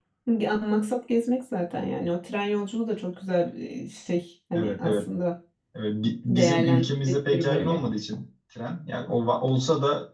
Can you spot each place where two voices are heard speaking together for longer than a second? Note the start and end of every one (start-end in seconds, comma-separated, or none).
6.3-7.8